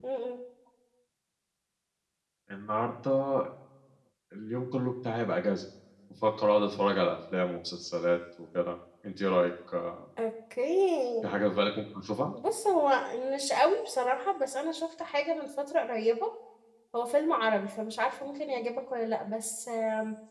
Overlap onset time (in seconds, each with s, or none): none